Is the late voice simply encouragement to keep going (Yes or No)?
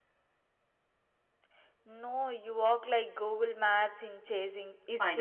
No